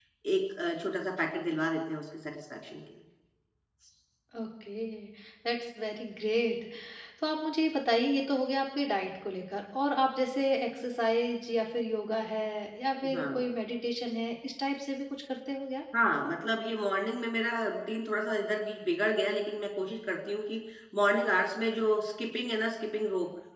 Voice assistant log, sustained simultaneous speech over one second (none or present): none